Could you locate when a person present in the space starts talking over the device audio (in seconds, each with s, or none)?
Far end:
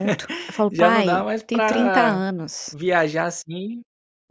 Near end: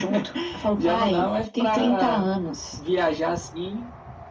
none